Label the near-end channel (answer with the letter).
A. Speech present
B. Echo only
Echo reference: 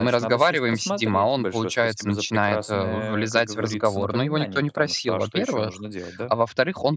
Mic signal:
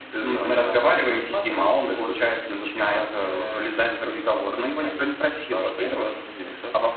B